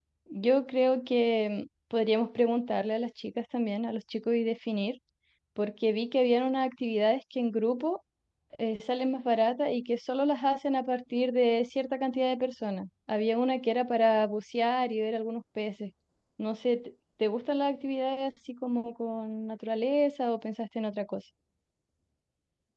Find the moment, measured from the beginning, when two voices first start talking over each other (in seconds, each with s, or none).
none